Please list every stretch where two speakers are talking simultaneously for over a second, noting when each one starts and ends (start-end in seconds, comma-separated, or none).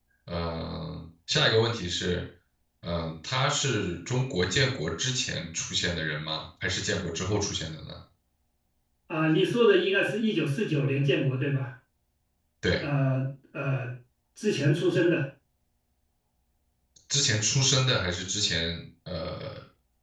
none